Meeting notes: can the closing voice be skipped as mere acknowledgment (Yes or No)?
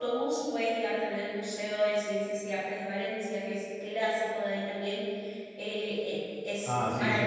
No